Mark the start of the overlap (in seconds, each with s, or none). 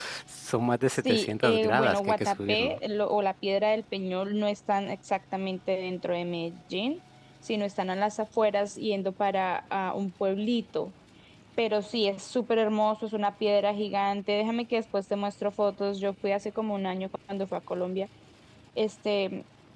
0.9 s